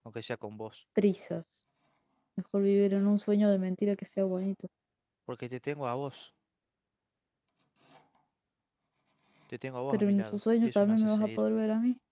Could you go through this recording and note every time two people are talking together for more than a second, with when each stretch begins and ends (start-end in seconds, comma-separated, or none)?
9.9-11.4